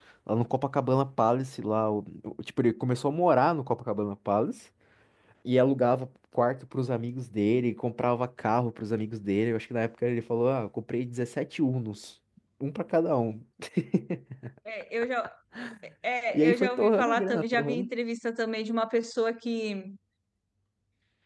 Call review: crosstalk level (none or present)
present